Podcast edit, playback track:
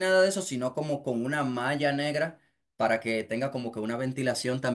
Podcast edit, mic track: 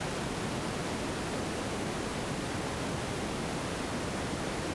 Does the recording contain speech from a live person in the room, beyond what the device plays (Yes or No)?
No